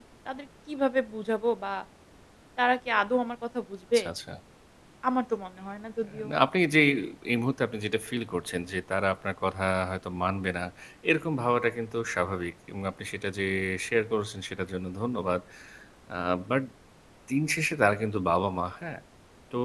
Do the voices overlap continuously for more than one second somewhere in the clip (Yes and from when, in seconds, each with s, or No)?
No